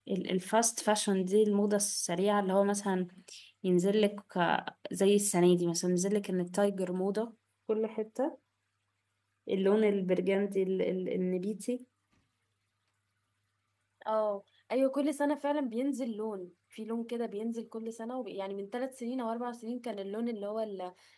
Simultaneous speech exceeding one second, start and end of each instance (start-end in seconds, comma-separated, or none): none